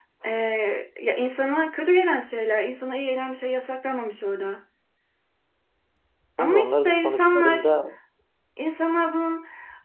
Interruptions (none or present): present